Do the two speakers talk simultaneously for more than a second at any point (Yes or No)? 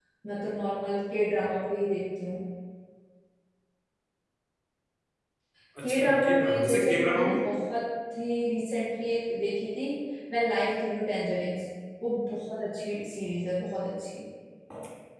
Yes